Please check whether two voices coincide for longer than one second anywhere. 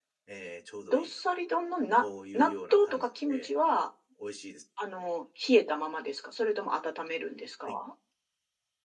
Yes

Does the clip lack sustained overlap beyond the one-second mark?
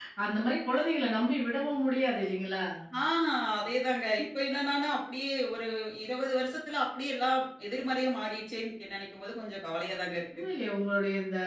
Yes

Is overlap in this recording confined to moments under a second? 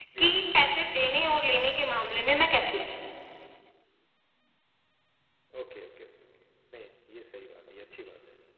Yes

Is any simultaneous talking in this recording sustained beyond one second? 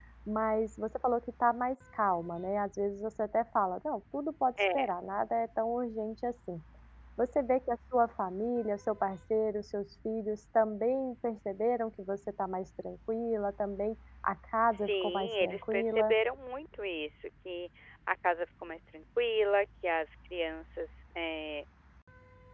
Yes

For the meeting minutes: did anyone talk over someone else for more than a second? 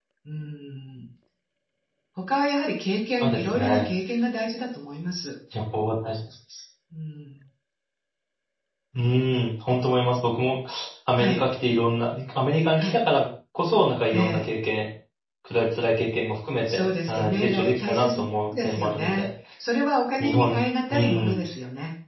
Yes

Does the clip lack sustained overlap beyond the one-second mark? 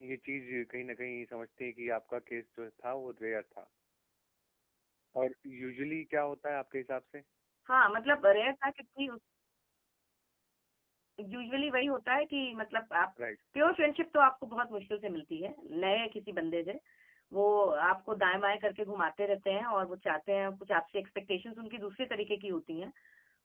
Yes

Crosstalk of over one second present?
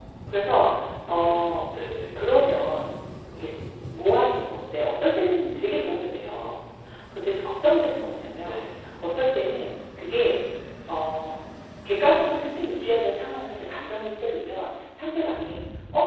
No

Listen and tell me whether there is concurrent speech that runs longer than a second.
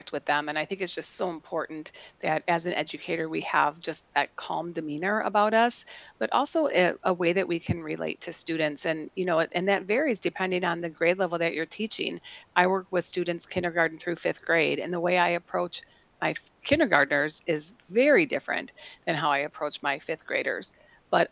No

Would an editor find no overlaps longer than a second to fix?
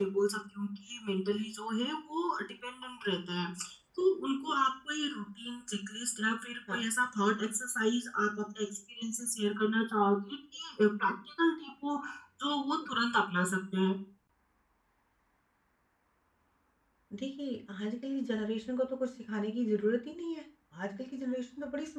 Yes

